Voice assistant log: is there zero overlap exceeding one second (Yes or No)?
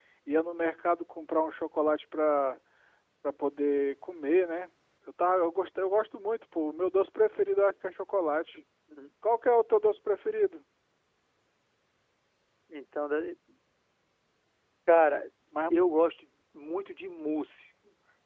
Yes